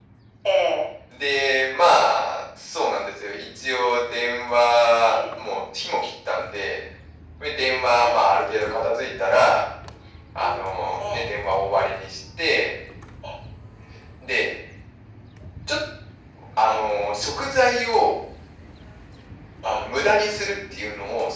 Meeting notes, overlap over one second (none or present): none